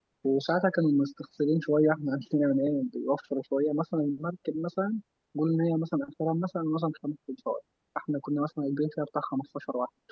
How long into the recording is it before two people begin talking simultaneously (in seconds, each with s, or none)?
none